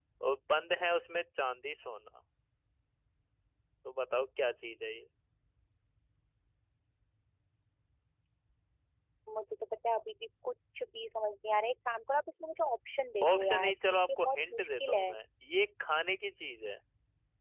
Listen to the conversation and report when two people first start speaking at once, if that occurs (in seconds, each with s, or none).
13.2 s